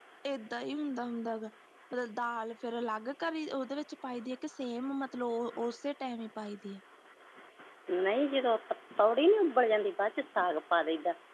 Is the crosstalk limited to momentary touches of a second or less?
Yes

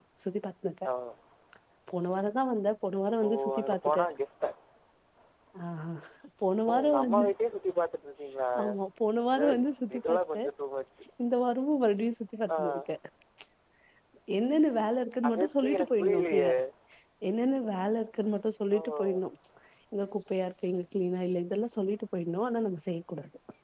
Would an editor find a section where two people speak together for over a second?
Yes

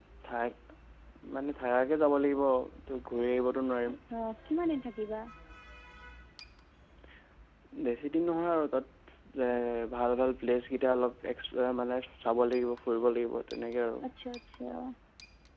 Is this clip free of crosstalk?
Yes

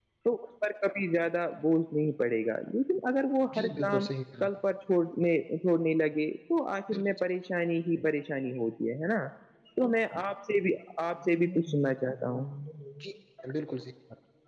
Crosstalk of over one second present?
No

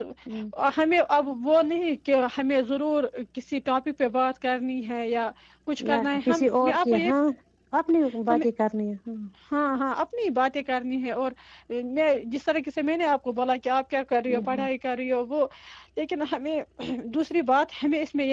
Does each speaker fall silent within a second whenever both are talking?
No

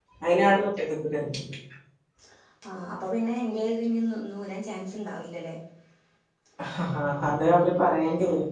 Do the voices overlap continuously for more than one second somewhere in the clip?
No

